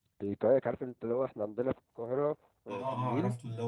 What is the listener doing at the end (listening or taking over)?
taking over